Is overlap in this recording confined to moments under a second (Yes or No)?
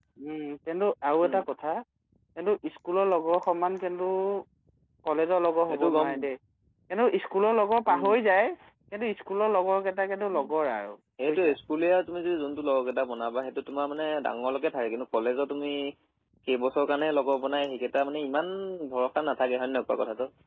Yes